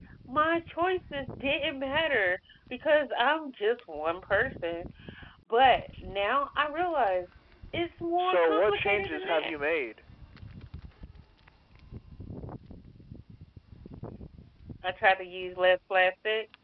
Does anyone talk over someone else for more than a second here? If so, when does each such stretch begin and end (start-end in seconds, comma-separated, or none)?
8.2-9.5